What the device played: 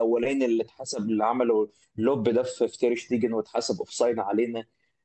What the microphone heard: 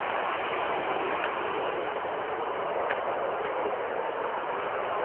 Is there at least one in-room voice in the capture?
No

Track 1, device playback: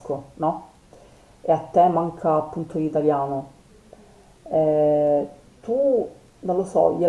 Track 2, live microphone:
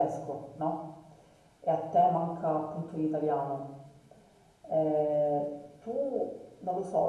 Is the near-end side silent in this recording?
Yes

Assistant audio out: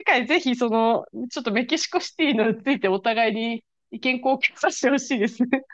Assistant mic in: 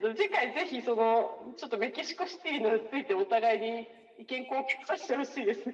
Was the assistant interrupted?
No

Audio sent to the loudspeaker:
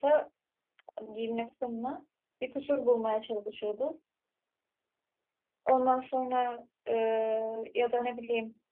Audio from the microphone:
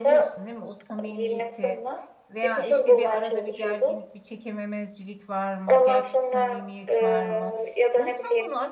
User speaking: Yes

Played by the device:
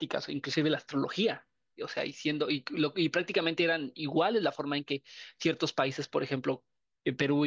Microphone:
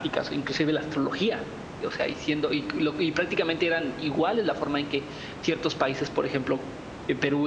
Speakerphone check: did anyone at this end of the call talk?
No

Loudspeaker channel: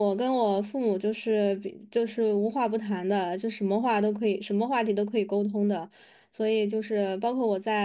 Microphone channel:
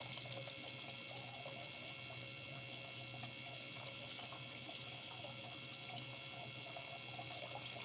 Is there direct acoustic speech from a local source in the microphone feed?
No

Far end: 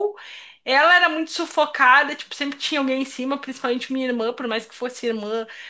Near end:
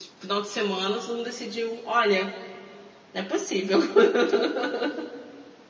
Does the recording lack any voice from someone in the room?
No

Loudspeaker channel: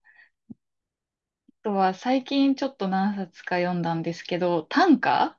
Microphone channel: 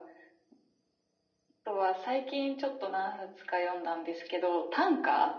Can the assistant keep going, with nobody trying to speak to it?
Yes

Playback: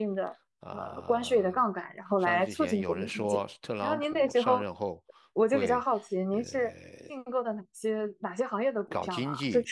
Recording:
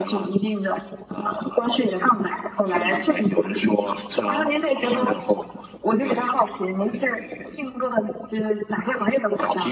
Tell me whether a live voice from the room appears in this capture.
No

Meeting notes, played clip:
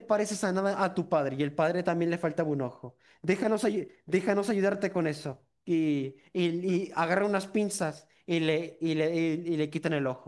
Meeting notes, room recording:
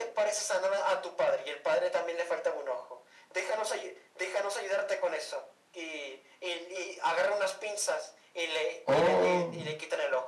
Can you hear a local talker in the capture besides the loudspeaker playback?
Yes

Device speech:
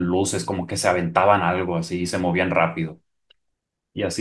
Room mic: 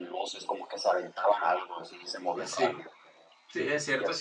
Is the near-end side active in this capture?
Yes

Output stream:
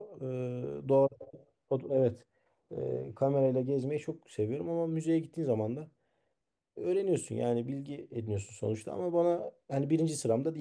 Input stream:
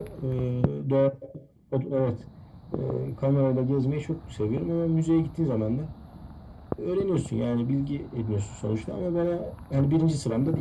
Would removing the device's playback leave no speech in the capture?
Yes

